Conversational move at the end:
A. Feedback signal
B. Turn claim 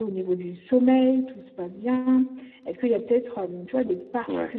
A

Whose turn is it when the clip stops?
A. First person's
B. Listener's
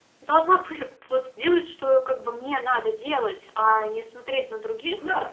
A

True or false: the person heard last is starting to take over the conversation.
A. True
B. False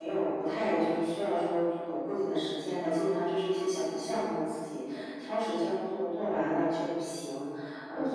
B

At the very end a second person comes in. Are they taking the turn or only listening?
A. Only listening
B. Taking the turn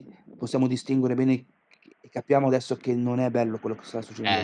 B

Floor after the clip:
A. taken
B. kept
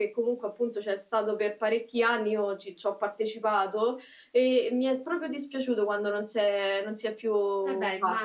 A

